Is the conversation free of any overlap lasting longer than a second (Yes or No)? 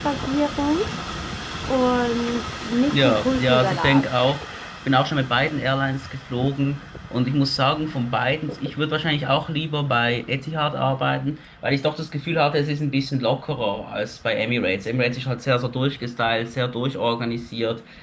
No